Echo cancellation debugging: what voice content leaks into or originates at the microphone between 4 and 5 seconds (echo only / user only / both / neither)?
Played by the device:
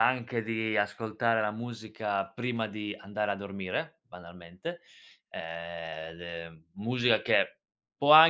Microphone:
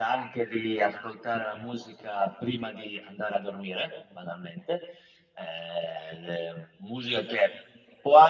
echo only